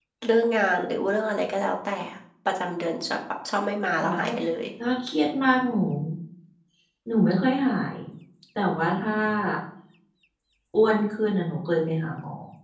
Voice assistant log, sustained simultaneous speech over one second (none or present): none